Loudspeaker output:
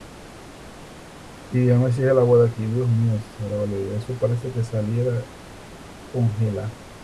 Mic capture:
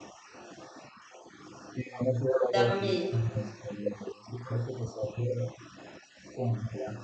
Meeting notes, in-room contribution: present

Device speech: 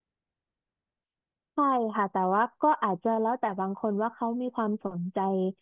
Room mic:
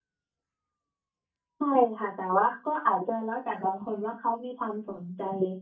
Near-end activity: none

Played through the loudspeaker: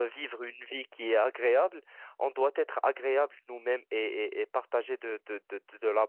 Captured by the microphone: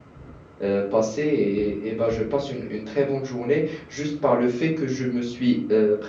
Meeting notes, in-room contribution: present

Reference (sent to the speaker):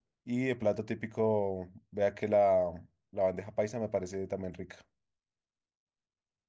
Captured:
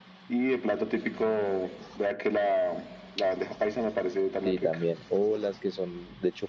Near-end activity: present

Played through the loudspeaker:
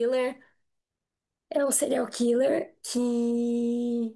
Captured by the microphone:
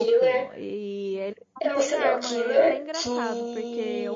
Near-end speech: present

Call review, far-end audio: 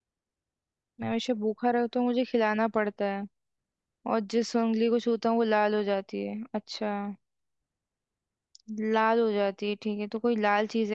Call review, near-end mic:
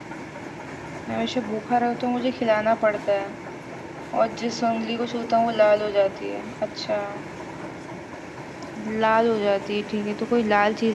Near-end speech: none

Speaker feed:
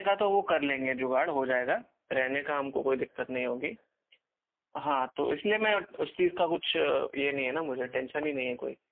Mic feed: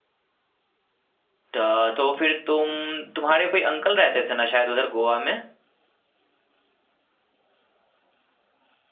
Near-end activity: present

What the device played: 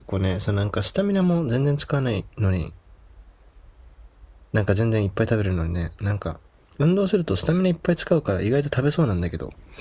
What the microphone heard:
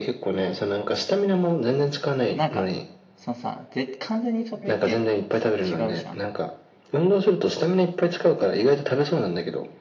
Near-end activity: present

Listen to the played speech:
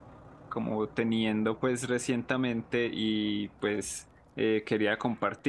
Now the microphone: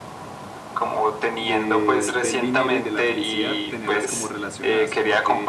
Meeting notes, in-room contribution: present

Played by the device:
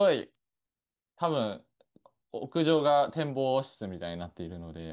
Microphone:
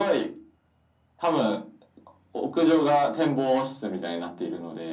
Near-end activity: none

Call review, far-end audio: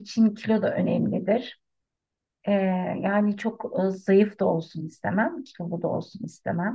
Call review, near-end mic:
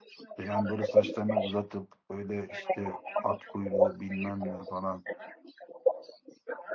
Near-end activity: present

